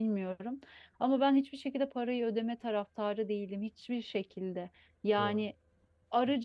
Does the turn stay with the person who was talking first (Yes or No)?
Yes